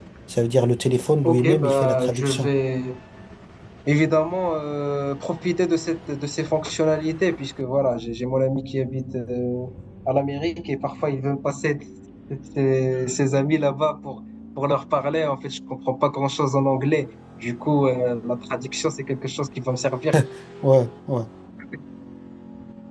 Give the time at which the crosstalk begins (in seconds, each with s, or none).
1.2 s